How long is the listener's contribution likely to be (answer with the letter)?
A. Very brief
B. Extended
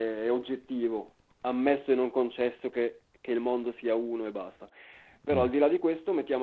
A